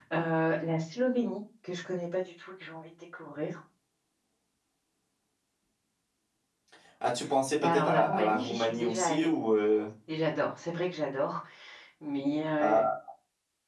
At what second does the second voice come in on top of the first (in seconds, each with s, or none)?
7.6 s